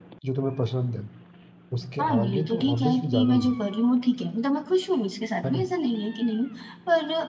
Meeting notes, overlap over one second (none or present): present